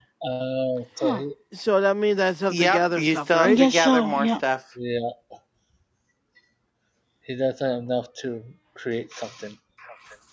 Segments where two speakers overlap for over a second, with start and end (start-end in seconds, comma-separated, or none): 2.5-4.3